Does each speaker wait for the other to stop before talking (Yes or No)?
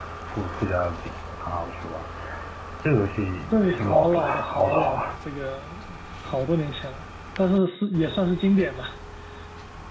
No